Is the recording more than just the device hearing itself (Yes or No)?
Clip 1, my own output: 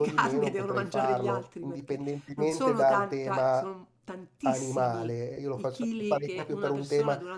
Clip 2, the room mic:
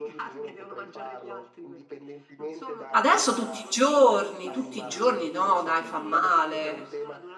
Yes